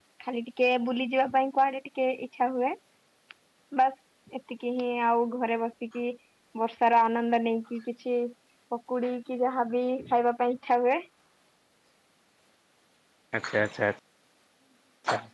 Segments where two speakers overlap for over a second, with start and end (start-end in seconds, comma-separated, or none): none